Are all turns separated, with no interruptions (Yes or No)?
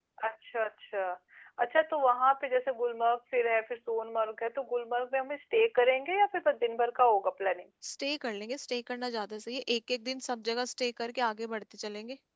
Yes